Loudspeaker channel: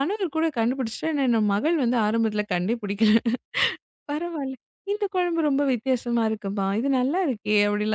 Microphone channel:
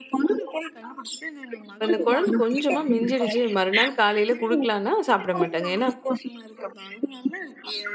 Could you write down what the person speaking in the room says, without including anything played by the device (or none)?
இப்ப இந்த குழம்பு கொஞ்சமா மிஞ்சிடுச்சு மறுநாள் காலையில குடுக்கலான்னா சாப்பிட மாட்டாங்க. ஏன்னா,